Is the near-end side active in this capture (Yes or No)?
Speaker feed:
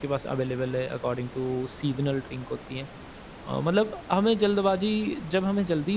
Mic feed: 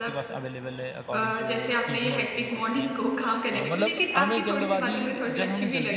Yes